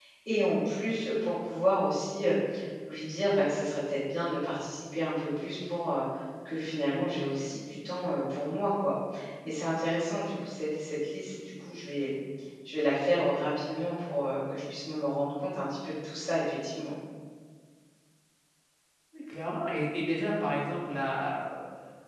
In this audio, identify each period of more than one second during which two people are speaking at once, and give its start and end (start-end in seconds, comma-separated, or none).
none